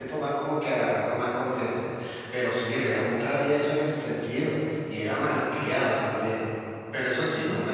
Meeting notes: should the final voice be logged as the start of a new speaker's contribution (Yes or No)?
No